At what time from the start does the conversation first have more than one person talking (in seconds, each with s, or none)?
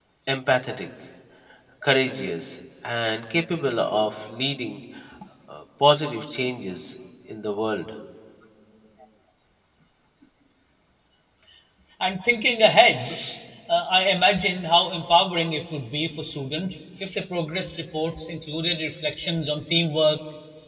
none